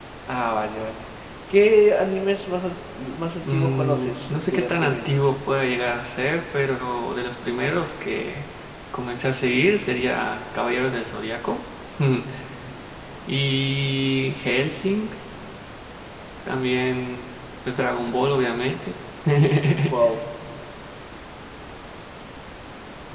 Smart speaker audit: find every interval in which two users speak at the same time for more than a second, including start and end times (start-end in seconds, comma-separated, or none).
3.4-5.2